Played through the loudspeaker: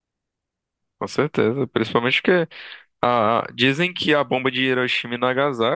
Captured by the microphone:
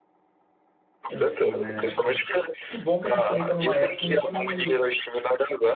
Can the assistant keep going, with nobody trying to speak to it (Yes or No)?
No